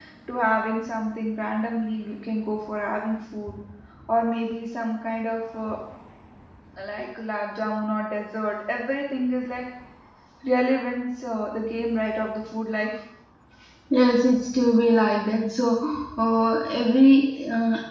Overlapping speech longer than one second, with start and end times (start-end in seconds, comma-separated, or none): none